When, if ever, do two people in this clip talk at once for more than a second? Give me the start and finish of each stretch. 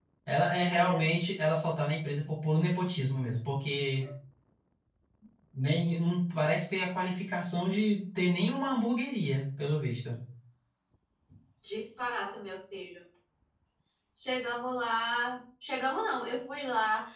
none

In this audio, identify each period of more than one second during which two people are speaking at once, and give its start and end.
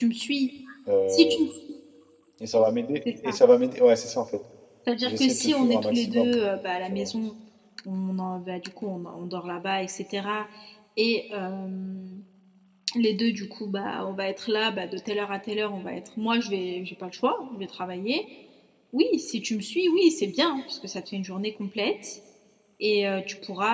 5.0-6.4

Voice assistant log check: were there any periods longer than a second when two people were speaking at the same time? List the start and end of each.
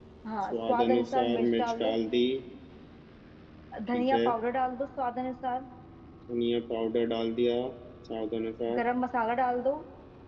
0.5-1.9

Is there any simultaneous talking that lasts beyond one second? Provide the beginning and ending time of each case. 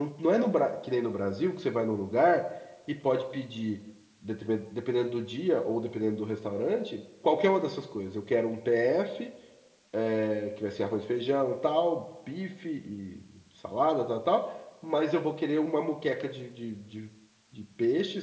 none

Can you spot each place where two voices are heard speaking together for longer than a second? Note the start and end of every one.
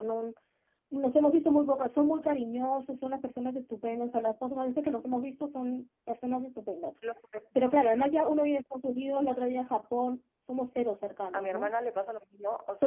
none

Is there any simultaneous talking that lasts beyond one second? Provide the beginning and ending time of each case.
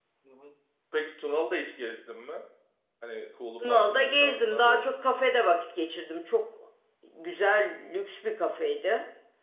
3.6-4.9

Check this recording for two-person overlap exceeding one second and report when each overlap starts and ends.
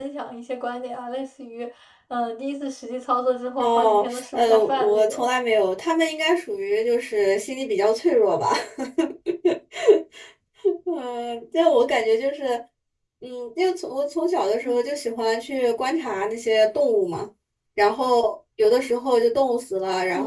3.6-5.3

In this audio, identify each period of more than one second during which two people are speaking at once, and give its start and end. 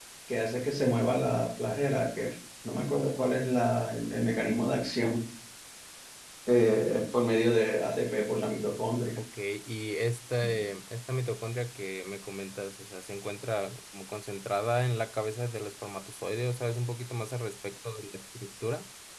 none

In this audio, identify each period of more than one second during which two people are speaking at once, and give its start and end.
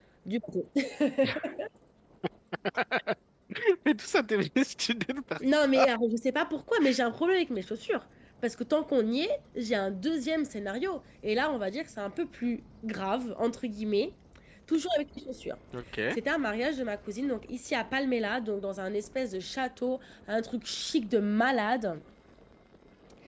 none

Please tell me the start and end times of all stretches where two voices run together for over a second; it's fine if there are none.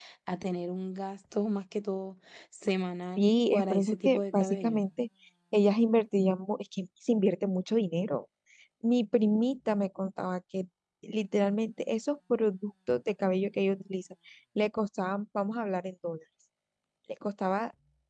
3.2-4.8

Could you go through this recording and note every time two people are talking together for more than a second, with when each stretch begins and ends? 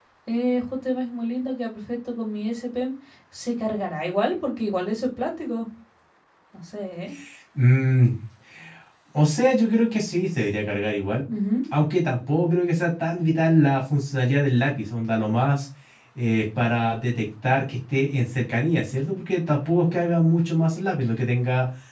none

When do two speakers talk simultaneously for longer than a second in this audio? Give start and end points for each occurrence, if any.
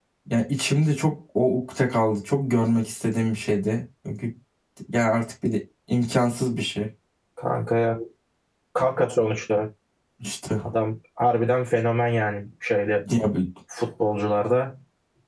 none

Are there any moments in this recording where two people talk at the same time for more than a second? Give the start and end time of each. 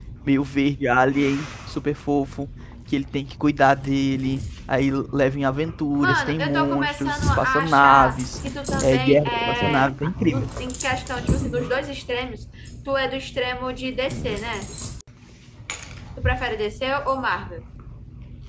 6.0-8.2, 8.8-10.5

